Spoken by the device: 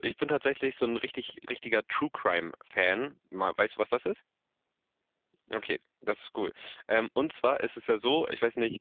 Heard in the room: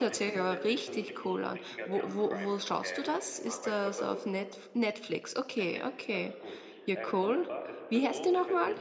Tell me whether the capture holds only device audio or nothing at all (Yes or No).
No